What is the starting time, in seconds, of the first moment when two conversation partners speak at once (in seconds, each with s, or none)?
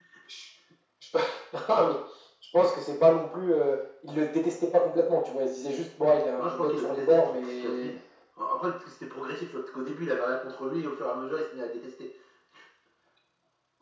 6.4 s